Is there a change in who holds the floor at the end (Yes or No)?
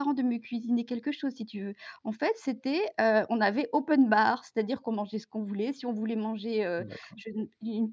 No